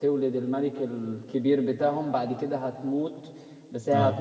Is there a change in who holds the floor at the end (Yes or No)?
No